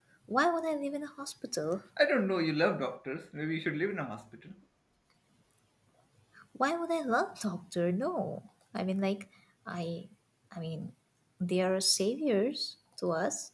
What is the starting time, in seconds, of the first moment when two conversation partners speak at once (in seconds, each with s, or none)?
none